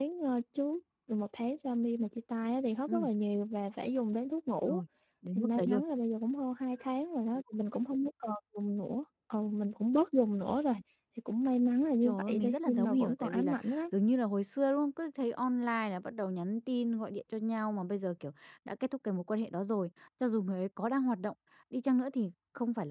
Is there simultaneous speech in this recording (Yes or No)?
Yes